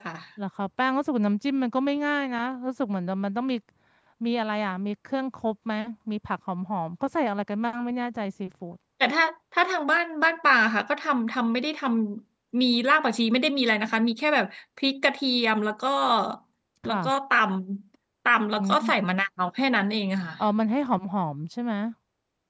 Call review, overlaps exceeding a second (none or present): none